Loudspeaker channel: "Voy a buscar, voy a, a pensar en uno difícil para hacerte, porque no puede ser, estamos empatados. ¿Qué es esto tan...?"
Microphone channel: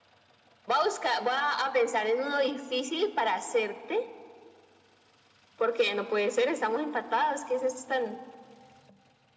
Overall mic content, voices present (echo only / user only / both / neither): echo only